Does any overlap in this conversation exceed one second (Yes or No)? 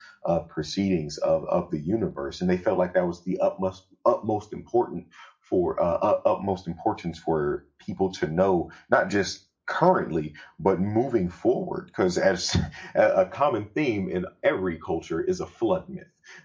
No